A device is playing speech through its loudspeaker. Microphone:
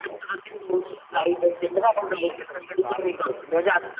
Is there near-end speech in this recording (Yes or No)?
Yes